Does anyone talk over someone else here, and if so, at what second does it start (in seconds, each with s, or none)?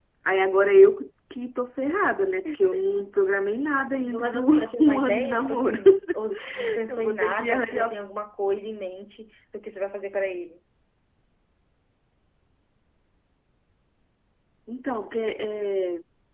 4.0 s